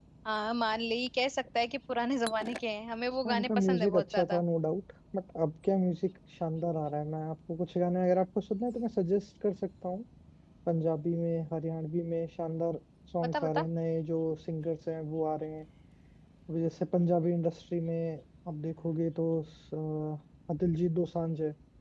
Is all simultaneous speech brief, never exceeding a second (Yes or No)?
No